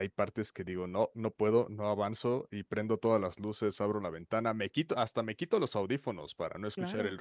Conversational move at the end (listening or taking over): listening